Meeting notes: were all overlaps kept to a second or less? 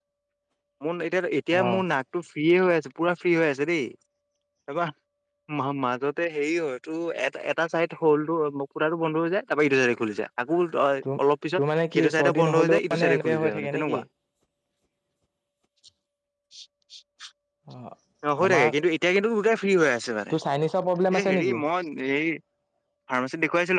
No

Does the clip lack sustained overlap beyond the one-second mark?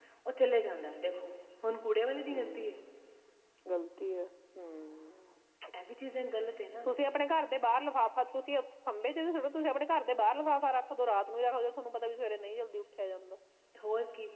Yes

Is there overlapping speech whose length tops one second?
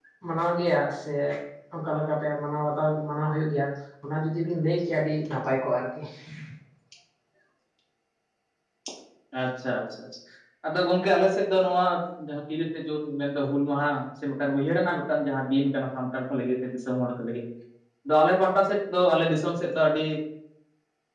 No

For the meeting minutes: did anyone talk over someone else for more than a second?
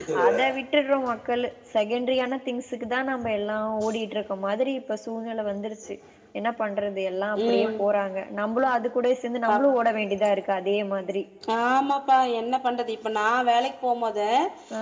No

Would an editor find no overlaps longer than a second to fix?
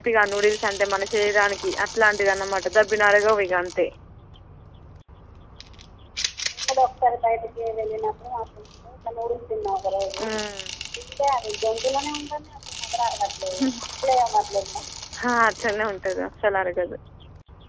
Yes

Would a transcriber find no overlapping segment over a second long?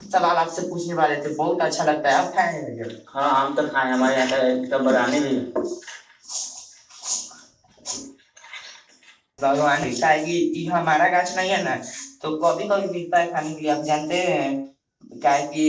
Yes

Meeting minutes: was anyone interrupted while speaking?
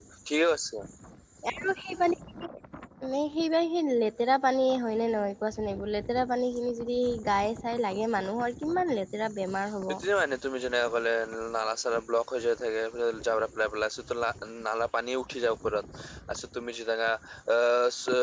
No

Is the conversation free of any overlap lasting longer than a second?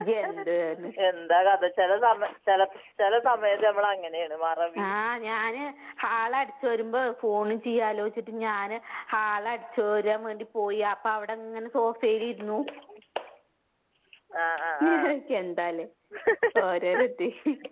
Yes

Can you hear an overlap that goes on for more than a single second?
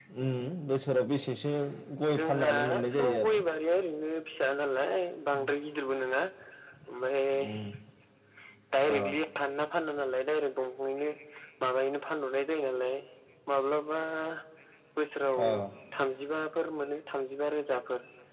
Yes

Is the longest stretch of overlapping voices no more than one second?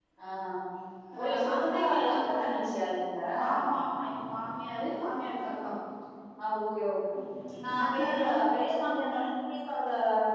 No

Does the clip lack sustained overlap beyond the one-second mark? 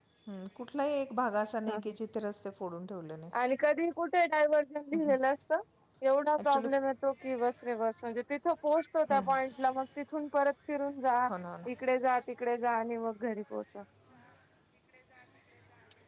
Yes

